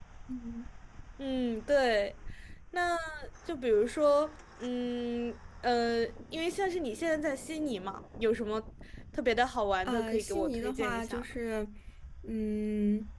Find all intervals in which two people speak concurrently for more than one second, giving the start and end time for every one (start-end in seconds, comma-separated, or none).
9.8-11.2